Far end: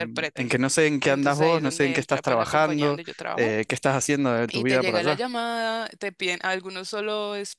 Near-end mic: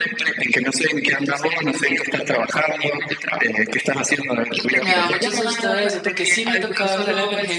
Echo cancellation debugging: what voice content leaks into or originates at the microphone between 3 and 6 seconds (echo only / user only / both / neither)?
both